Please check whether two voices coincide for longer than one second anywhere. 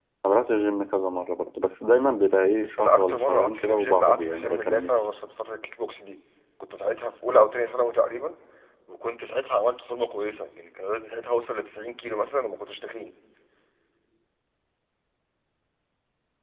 Yes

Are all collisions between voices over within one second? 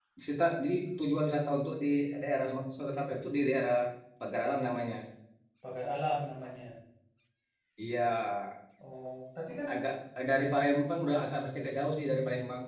Yes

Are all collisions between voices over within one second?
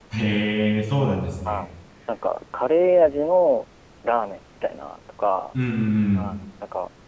Yes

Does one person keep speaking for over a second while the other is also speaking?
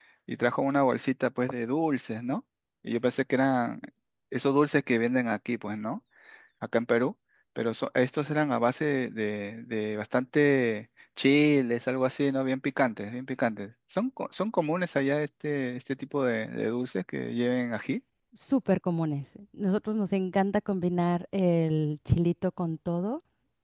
No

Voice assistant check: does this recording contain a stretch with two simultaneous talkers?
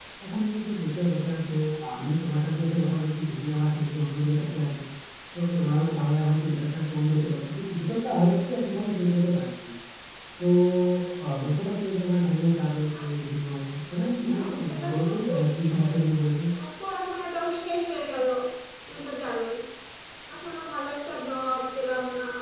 Yes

